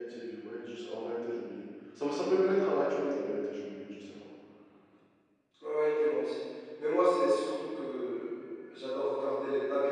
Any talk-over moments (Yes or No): No